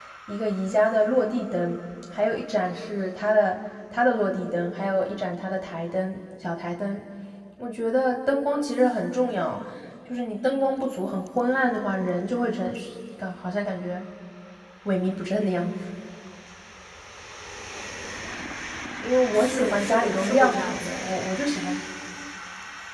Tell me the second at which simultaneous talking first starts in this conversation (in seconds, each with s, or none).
19.3 s